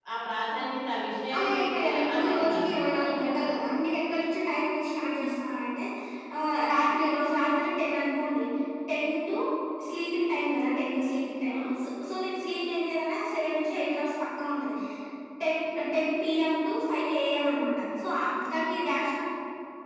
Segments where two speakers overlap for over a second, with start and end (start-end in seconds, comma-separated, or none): 1.4-3.4